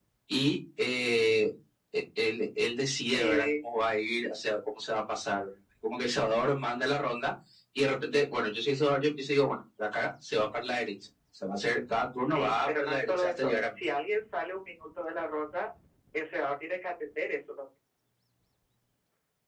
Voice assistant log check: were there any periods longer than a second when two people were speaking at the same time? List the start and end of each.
12.2-13.5

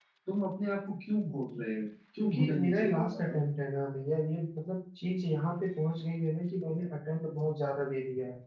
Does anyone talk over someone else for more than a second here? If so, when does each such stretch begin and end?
2.2-3.4

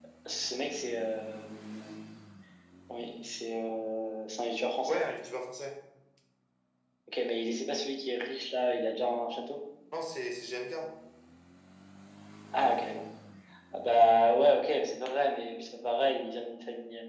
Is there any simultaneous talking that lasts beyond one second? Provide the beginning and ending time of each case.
none

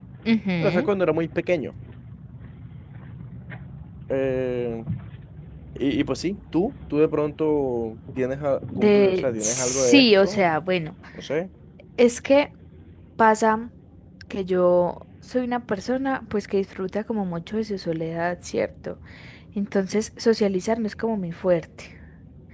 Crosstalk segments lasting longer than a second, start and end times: 8.8-10.5

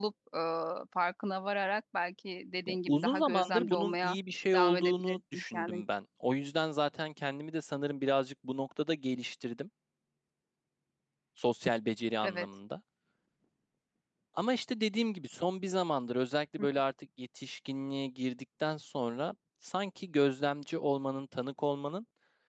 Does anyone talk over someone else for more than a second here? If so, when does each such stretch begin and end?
2.7-4.2, 4.5-5.8

